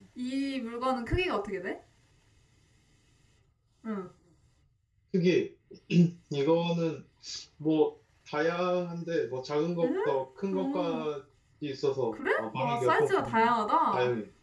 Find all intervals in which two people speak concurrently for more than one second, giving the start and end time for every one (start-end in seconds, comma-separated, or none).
12.1-13.4